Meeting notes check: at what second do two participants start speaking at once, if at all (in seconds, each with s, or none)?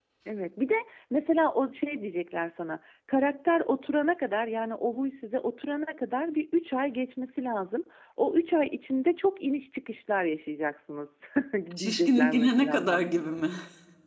11.8 s